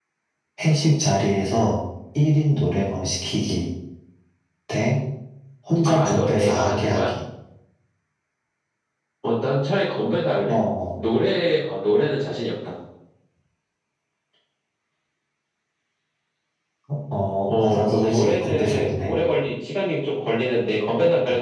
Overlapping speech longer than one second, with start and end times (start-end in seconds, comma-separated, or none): 5.8-7.1, 17.5-19.2